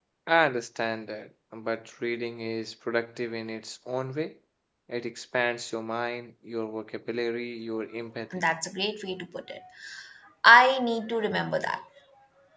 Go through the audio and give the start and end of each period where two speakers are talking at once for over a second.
none

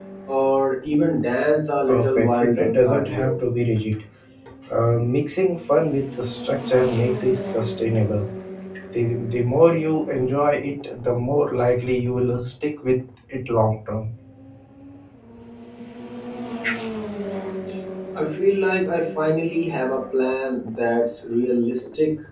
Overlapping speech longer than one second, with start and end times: 1.9-3.3

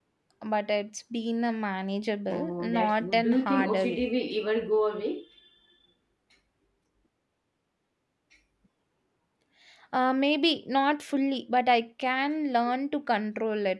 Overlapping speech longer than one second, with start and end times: 2.3-4.1

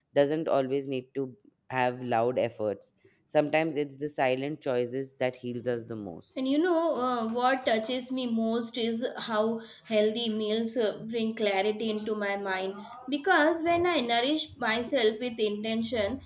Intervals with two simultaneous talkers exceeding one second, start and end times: none

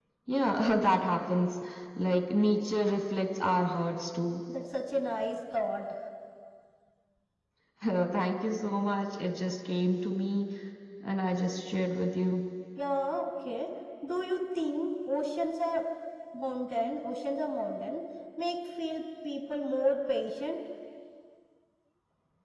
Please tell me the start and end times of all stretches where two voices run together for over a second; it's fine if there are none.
none

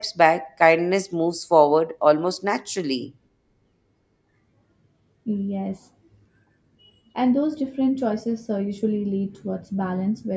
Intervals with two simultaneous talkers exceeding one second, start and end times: none

